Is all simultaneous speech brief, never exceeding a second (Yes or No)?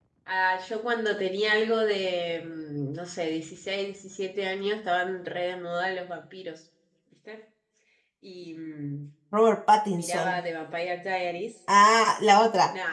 Yes